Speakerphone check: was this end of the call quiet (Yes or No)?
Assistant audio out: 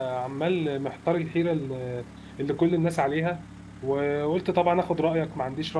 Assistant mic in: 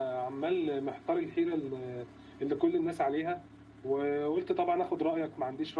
Yes